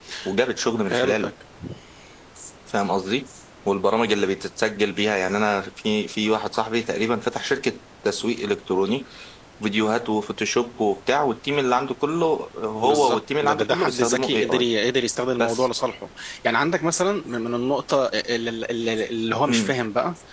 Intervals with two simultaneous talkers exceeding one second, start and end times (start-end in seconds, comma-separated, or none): 12.8-14.6